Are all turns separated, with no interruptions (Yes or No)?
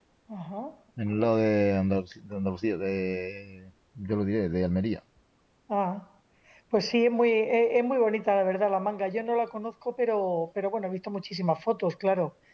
Yes